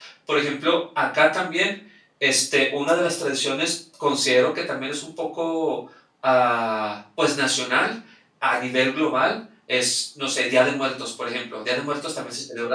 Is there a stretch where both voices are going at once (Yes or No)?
No